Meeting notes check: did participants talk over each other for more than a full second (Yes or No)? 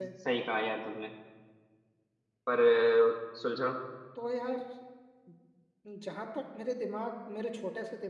No